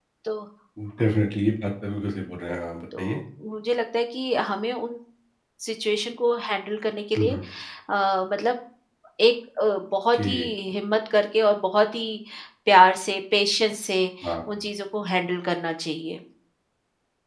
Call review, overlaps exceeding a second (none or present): none